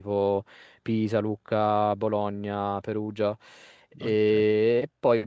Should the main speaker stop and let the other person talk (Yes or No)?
No